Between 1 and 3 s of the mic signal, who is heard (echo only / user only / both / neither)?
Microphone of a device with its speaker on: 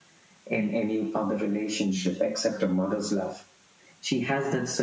echo only